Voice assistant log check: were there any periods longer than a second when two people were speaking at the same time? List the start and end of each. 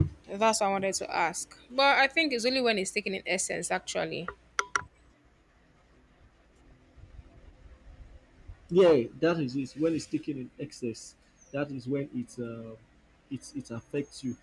none

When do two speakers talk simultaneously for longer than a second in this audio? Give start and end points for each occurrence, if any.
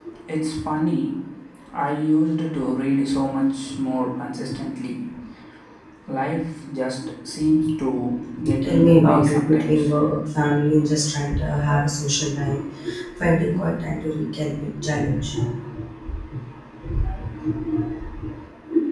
8.6-9.9

